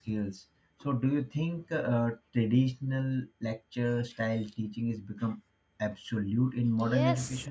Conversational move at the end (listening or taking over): taking over